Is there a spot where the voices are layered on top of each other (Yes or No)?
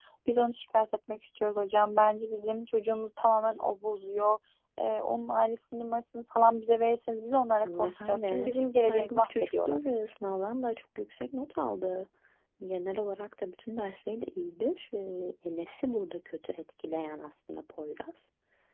Yes